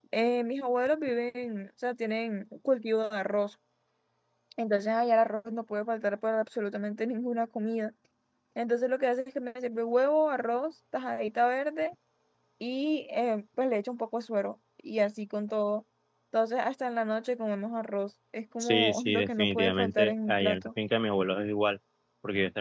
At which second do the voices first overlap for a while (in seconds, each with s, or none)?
18.6 s